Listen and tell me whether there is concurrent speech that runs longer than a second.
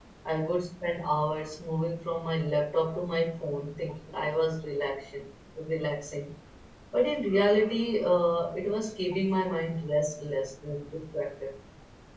No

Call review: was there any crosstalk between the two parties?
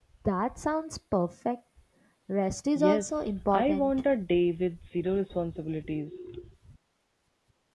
Yes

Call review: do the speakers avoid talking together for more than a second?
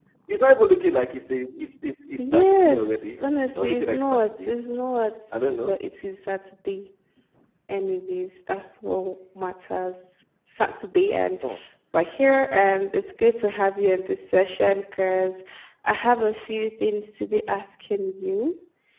No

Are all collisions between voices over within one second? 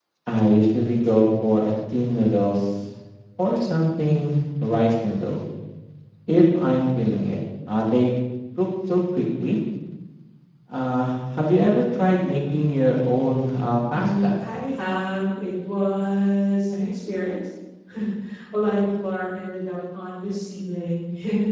Yes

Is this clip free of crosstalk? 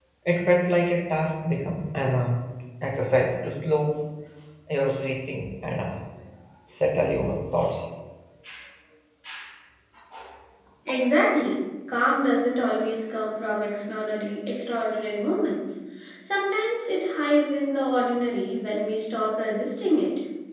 Yes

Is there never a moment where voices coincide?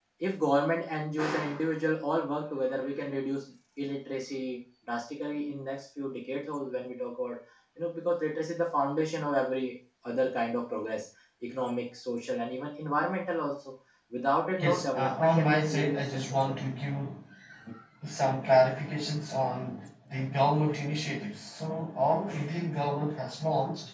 No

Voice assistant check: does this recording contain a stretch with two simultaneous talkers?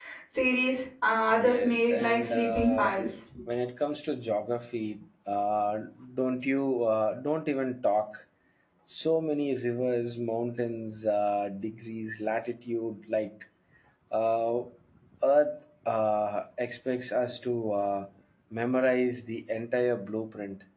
Yes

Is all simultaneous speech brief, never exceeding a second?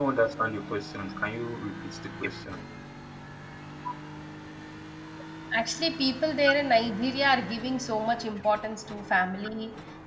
Yes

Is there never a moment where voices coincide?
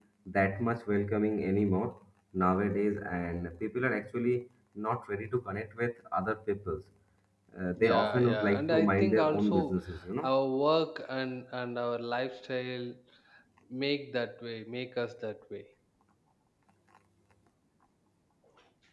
No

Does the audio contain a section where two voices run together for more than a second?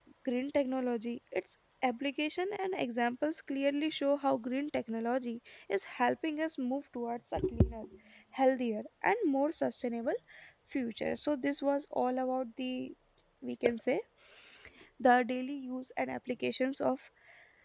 No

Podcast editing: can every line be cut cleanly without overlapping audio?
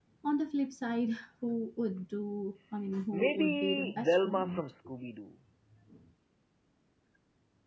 No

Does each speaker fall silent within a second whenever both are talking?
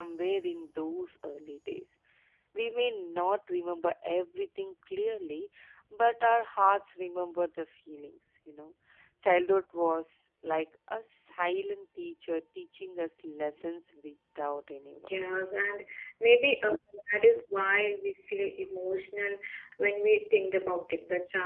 Yes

